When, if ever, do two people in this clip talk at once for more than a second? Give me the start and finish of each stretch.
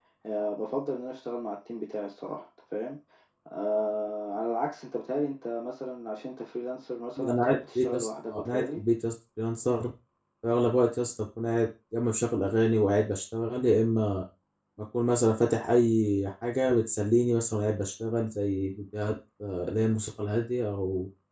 7.2-8.8

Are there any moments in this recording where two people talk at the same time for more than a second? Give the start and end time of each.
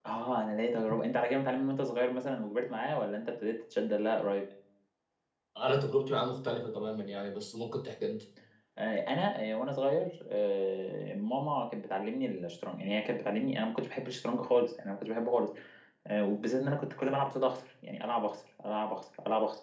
none

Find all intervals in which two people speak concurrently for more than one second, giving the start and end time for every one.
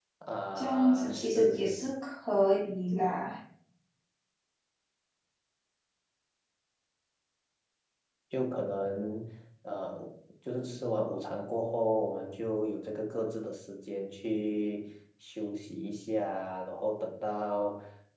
0.6-1.8

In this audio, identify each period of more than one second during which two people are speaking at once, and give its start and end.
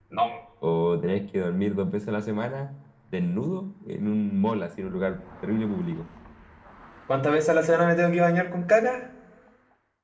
none

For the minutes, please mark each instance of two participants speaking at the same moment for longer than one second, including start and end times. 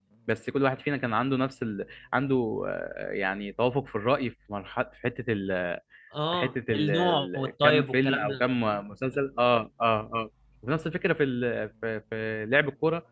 6.3-8.4

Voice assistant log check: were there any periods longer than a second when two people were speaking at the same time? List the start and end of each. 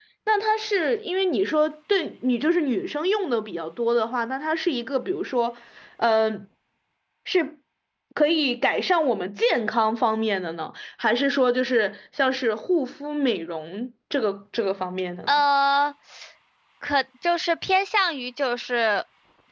none

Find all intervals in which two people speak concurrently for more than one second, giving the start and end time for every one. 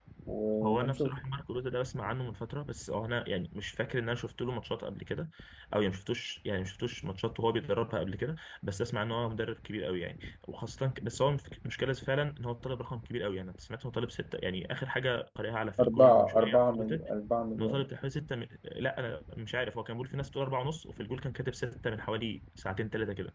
15.8-17.1

